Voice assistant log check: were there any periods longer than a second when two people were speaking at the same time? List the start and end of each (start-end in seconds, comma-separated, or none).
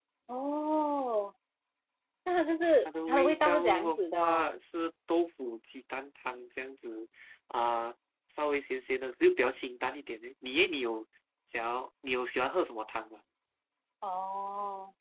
2.8-4.5